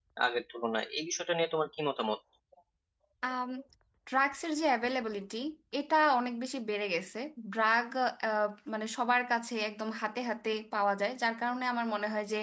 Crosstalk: none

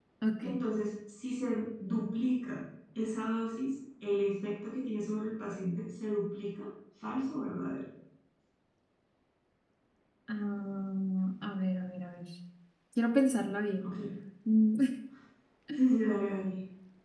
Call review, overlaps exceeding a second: none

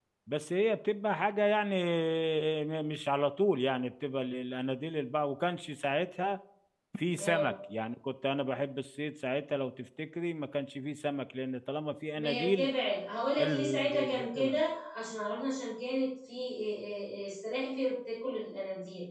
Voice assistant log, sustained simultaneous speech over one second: present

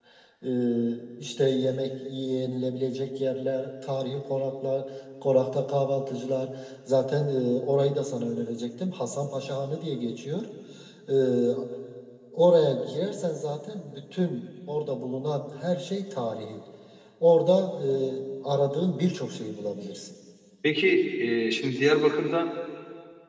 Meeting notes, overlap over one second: none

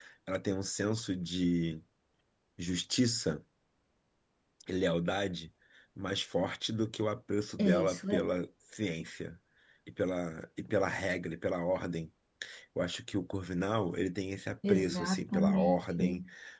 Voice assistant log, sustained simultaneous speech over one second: present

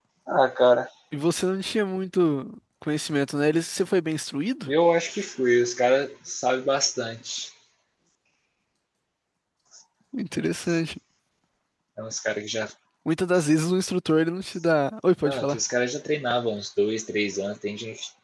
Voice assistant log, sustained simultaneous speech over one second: none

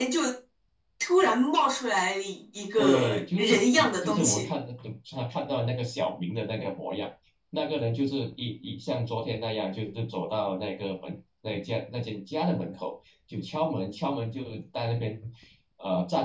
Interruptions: present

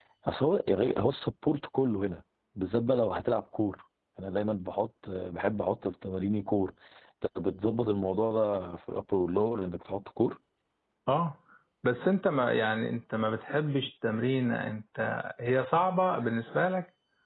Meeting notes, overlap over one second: none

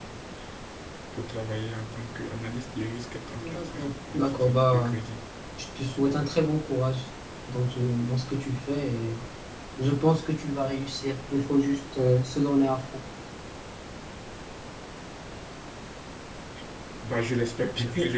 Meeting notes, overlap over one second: present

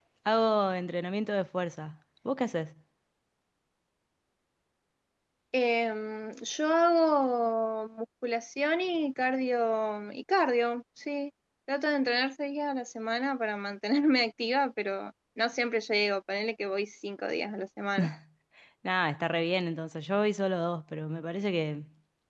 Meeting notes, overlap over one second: none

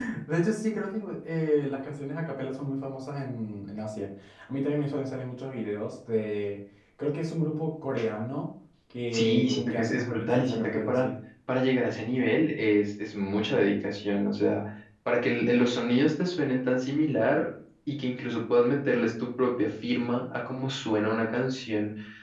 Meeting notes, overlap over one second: present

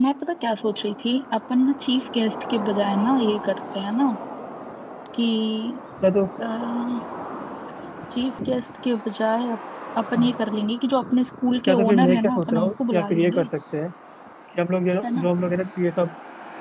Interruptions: present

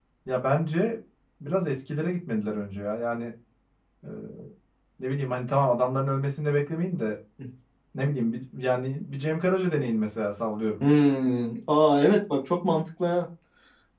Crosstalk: none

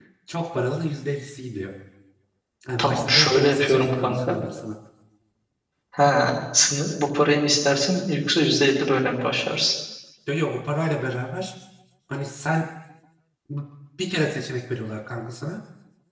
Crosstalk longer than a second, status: present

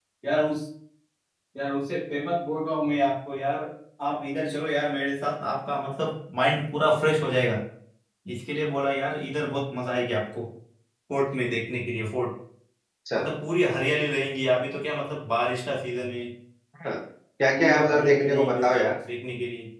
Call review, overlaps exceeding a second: present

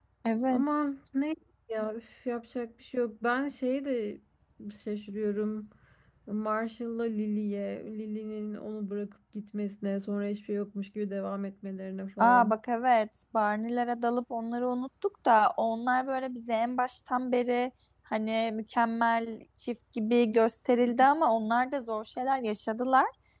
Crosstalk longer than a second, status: none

